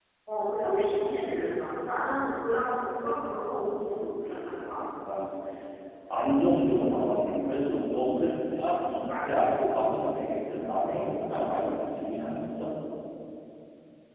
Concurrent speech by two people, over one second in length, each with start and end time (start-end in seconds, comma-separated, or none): none